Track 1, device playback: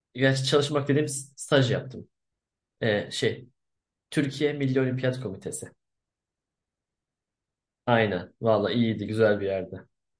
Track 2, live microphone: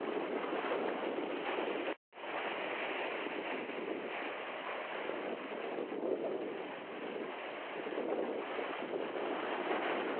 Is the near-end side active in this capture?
No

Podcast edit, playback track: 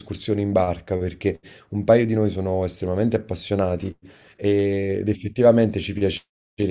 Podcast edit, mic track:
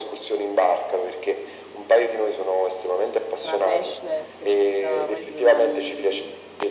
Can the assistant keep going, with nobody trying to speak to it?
No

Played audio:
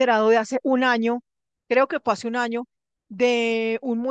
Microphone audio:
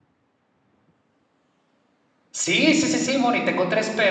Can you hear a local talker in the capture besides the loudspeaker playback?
Yes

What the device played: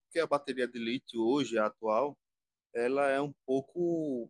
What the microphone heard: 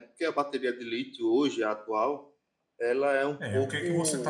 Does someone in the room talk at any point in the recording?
Yes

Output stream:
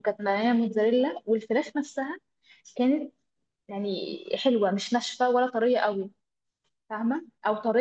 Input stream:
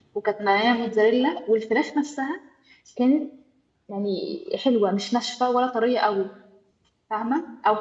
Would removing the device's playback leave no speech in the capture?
Yes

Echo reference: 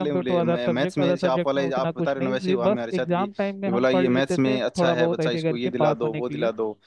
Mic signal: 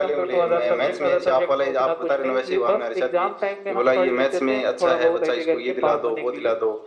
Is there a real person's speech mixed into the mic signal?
No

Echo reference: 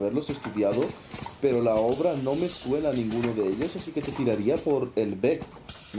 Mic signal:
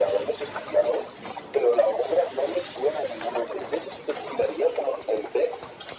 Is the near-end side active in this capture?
No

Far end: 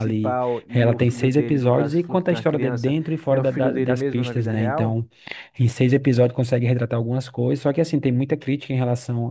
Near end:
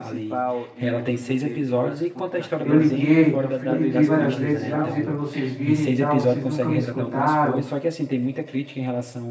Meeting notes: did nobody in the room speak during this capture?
No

